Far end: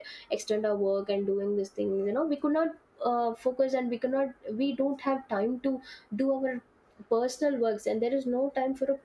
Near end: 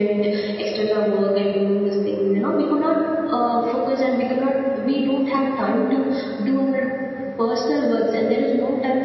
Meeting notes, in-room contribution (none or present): none